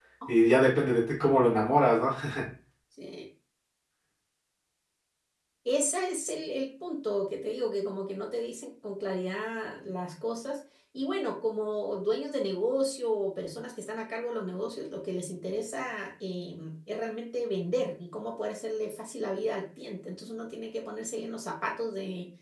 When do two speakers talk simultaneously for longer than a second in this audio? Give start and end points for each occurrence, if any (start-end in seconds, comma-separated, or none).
none